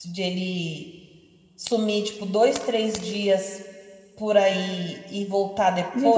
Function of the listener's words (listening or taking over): taking over